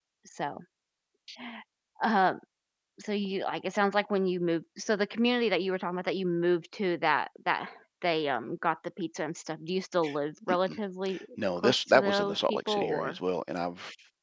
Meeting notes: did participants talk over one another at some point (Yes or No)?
Yes